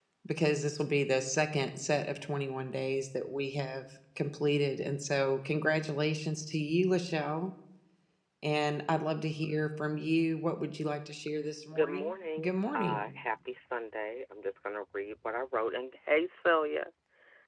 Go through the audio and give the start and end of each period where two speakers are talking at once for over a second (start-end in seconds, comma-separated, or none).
11.7-13.0